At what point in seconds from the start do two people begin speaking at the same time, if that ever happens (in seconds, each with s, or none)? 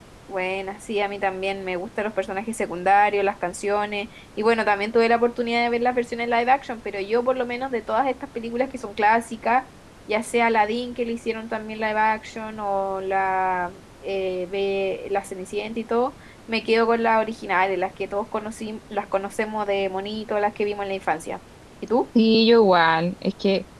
none